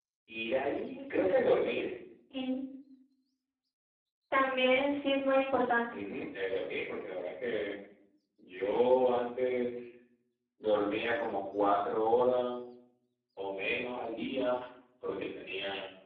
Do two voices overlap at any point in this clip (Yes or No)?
No